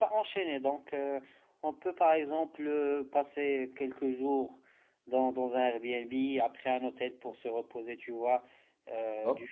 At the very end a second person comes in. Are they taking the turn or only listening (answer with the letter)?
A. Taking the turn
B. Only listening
B